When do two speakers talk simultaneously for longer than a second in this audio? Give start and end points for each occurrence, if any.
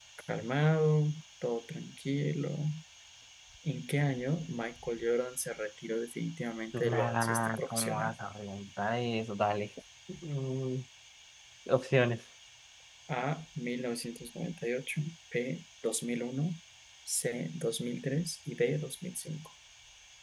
6.7-8.2

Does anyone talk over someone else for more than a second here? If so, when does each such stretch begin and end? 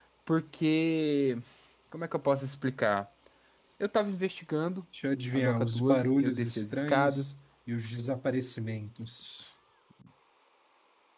5.3-7.3

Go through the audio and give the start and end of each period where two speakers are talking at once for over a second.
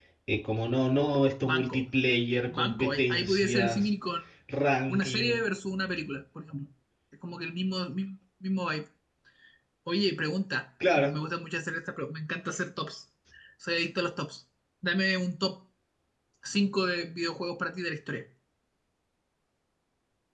2.5-3.9

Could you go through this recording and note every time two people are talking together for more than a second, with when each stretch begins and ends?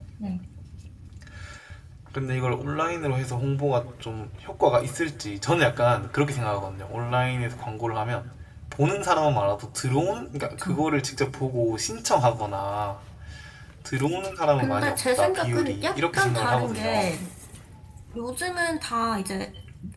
14.6-17.1

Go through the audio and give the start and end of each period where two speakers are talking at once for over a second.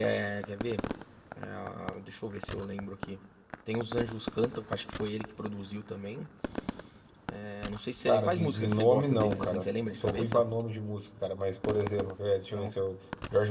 8.1-10.4

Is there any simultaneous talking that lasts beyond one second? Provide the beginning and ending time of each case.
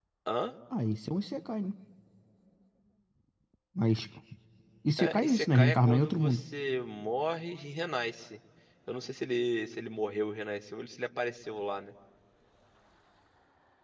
5.0-6.4

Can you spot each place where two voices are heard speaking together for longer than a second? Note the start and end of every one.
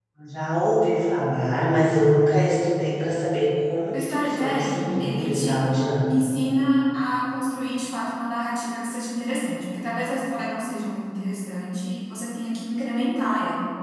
3.9-5.6

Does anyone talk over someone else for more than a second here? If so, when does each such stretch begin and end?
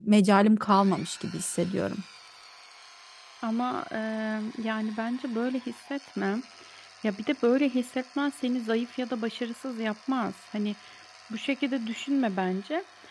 none

